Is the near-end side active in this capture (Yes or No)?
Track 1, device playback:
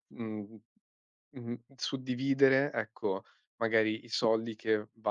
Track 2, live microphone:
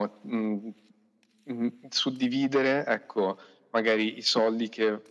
No